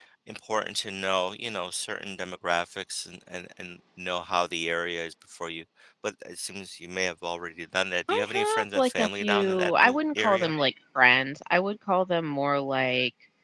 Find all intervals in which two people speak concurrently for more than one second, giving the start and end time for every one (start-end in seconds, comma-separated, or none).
8.1-10.5